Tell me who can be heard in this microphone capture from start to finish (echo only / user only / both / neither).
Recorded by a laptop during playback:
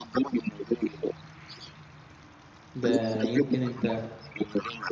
both